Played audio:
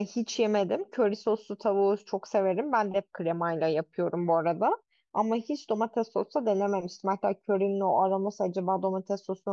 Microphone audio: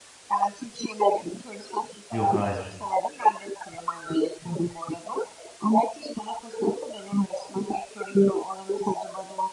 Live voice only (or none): Yok hayır.